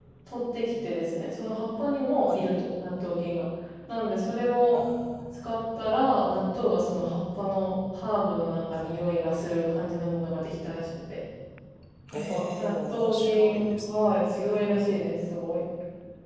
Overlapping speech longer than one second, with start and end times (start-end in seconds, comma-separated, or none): 12.1-15.2